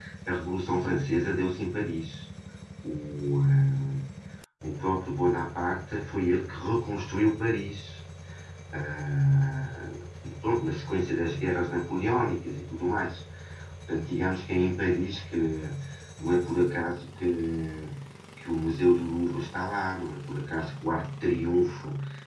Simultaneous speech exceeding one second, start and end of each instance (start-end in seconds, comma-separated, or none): none